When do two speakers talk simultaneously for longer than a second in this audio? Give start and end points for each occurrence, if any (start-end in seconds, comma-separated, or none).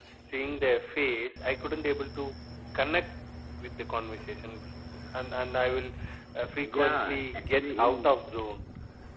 6.6-8.2